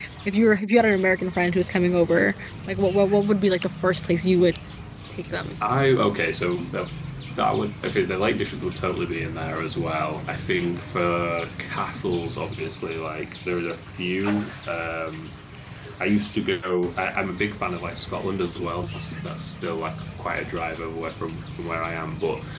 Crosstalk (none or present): none